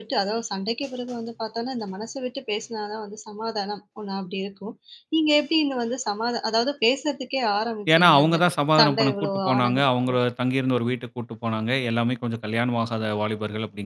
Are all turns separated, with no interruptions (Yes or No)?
No